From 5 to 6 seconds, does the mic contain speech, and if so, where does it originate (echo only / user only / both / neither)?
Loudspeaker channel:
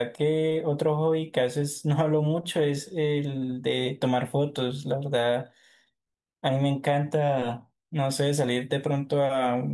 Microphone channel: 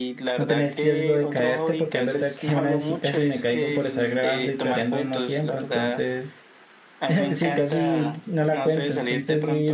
both